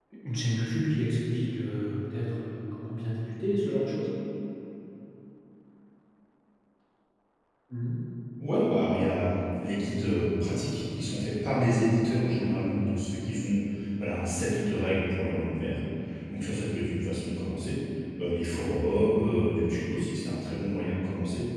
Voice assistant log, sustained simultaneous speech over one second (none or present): none